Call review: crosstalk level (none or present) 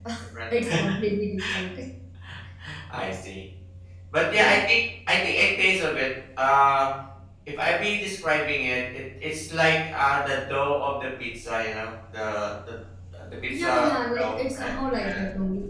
present